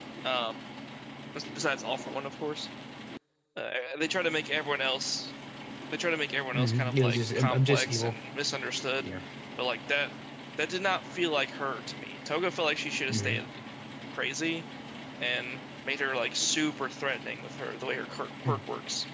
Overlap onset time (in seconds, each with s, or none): 6.5 s